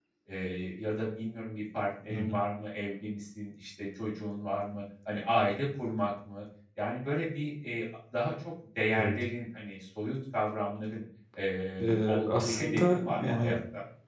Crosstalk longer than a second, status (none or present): present